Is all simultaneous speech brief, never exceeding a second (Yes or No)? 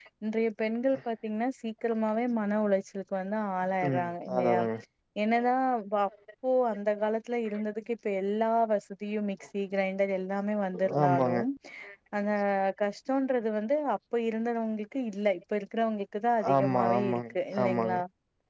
No